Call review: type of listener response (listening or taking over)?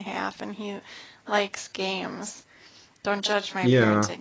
listening